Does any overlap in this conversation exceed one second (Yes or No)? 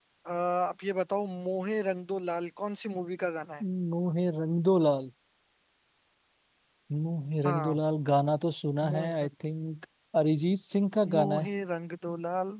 No